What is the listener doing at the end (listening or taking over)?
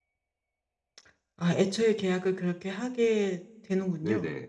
taking over